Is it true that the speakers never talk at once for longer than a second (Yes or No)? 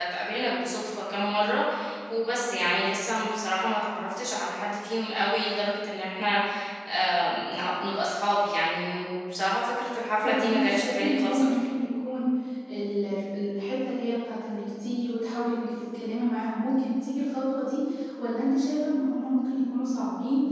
No